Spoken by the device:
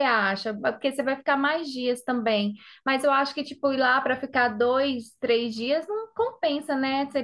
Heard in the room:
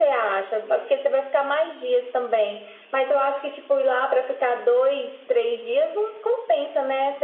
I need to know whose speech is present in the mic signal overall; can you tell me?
echo only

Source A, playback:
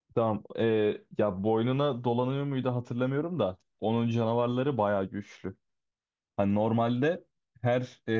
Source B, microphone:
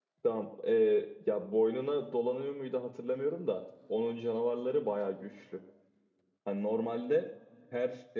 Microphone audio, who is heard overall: echo only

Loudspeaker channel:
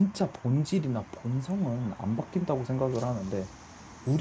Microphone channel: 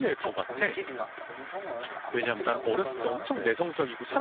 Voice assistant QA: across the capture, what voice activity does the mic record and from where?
both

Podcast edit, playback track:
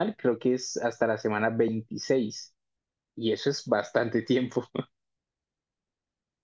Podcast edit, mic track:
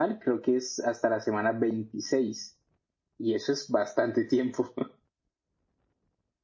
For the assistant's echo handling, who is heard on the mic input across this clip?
echo only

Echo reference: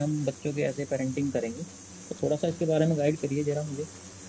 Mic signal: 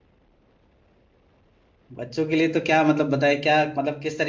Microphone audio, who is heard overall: user only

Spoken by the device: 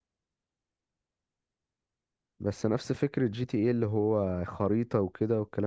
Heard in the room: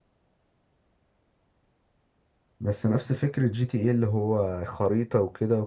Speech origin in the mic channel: echo only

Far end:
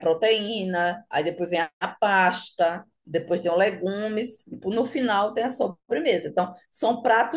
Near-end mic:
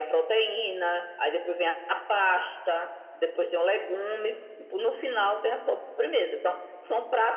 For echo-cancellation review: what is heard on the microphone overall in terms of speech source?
echo only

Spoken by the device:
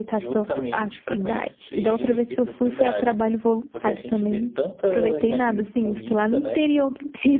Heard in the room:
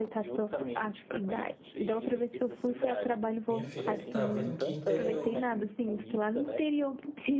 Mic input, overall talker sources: both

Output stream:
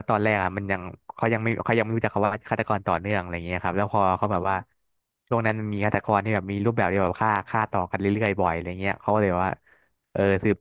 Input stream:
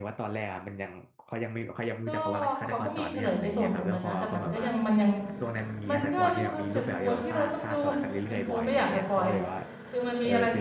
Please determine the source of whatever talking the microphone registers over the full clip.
both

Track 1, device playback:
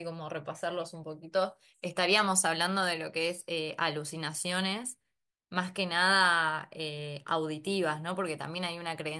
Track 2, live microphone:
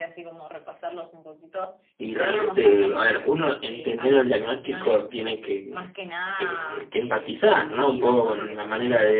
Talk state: both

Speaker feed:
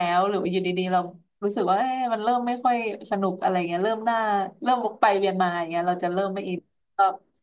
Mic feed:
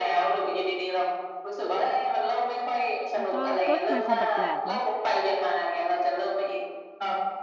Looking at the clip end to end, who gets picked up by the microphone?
both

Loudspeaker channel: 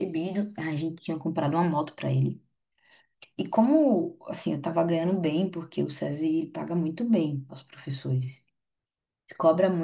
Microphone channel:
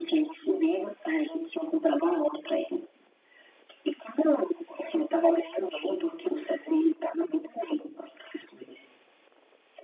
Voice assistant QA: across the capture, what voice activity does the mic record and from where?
echo only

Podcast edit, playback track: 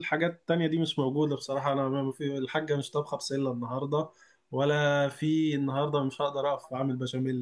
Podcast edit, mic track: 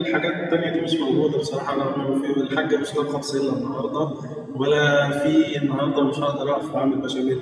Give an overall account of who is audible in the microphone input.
echo only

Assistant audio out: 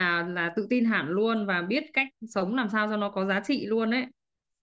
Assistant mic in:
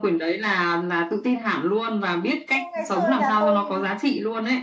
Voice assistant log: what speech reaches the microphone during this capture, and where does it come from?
both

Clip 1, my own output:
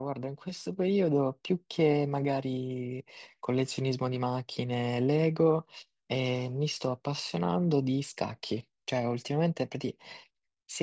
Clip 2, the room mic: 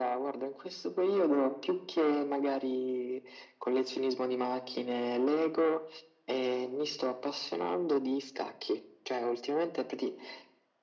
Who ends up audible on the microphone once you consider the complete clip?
echo only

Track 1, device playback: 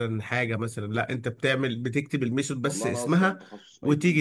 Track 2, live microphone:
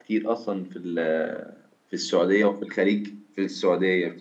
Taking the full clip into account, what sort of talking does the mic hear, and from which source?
user only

